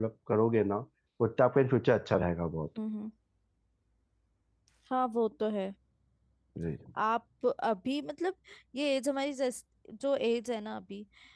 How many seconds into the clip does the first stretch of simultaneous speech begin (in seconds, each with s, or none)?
none